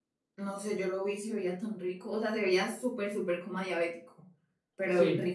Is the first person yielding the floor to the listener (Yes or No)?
Yes